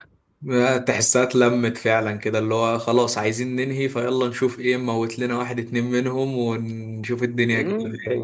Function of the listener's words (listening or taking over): taking over